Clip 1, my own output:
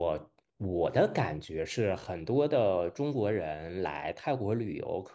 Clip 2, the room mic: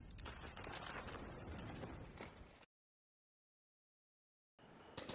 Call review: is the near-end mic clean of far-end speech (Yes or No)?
Yes